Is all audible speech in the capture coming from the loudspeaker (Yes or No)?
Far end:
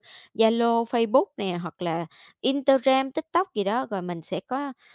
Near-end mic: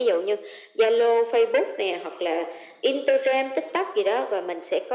Yes